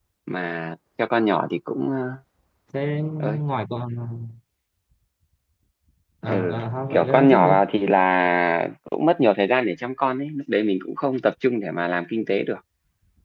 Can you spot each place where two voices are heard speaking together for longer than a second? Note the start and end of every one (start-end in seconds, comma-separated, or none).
6.3-7.5